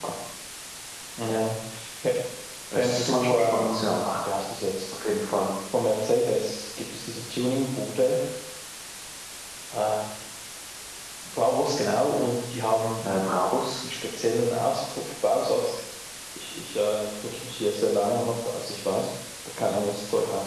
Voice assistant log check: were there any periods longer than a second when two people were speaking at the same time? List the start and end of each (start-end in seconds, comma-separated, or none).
2.7-4.1